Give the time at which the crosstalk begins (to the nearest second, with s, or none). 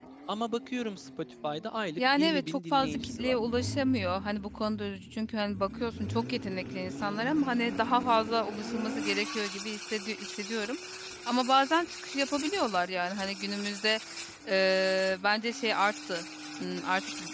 2 s